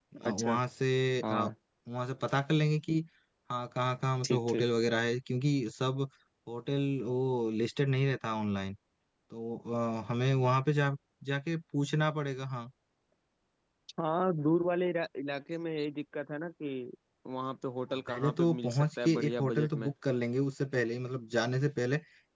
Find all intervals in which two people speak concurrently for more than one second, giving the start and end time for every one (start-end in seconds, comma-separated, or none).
18.1-19.9